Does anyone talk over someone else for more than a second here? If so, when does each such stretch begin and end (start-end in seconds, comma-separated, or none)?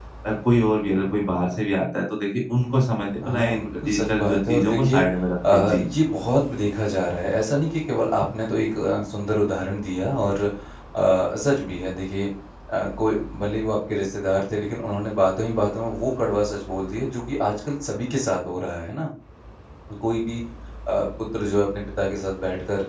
3.2-5.0